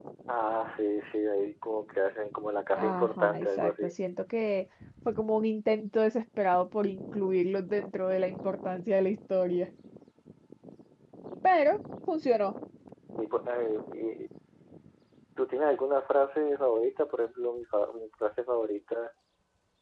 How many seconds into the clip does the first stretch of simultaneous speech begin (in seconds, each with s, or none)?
2.8 s